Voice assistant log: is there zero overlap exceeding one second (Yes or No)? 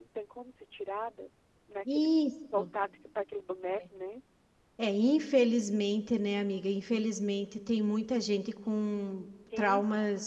Yes